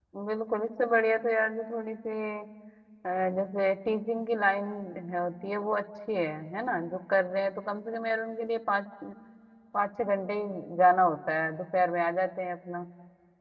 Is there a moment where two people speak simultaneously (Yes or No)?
No